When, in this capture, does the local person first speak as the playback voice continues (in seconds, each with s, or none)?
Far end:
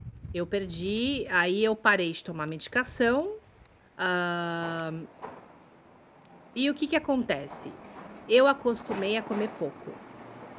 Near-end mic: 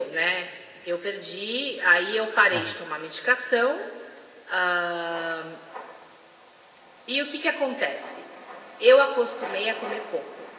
2.5 s